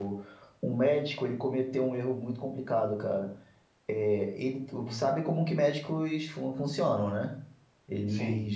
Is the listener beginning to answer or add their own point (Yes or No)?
No